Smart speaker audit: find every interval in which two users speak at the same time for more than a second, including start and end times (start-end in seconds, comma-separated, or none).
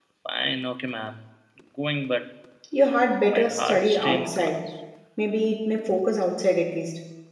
3.3-4.7